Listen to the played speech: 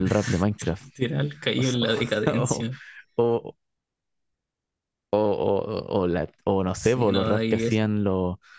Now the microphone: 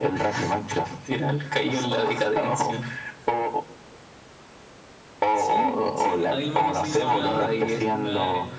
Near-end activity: present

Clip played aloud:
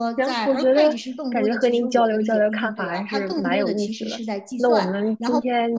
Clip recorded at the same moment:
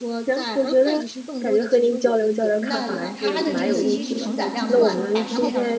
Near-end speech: present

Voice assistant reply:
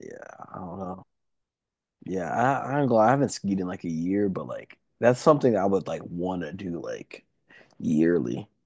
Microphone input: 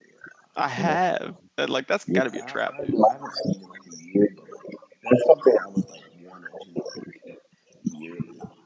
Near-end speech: present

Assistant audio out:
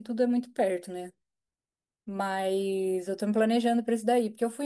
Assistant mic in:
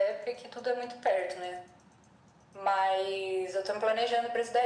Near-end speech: none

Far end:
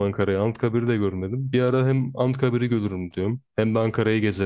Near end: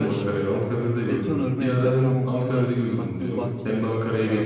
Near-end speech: present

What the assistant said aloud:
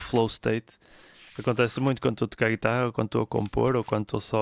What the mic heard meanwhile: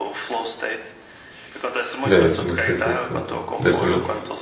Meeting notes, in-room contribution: present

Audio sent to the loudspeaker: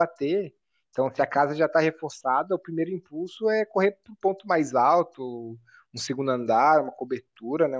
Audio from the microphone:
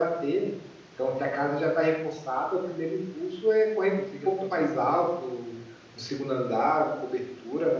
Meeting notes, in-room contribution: present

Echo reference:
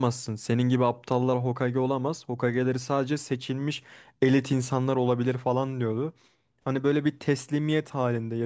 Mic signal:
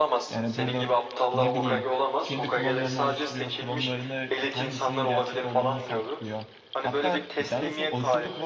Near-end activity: present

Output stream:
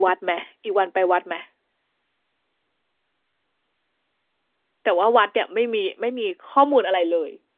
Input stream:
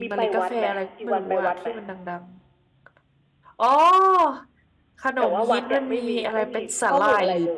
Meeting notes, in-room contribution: present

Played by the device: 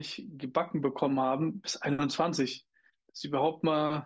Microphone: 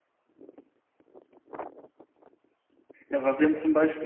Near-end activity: present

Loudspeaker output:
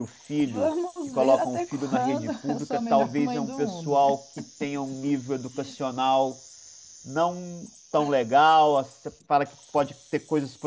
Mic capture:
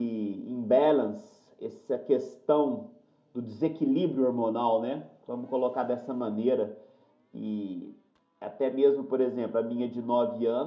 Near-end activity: present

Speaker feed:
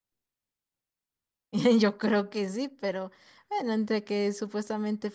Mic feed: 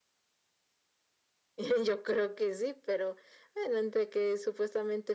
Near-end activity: none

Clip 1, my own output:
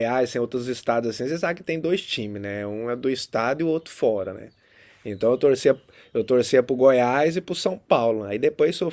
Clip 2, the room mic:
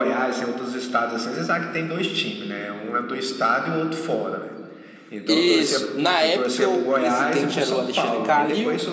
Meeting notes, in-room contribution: present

